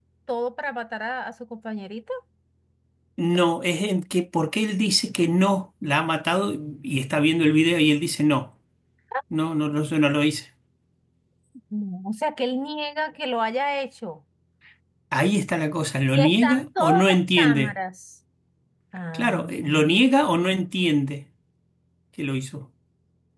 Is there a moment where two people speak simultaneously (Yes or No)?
Yes